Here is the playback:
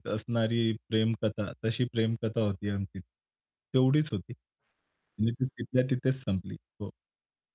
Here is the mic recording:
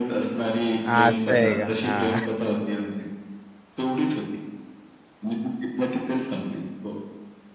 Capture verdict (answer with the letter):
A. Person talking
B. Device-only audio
A